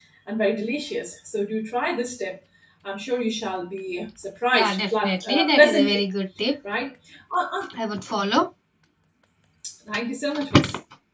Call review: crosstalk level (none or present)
present